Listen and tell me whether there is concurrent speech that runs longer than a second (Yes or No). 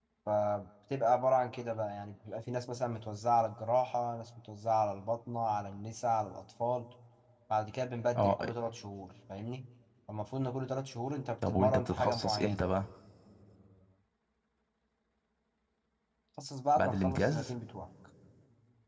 Yes